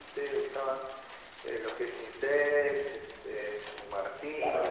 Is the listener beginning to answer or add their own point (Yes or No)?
Yes